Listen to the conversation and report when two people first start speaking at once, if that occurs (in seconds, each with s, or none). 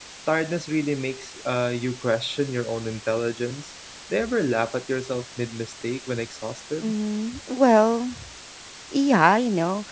none